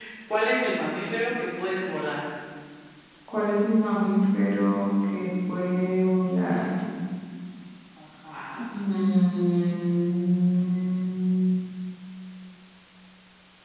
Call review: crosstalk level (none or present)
none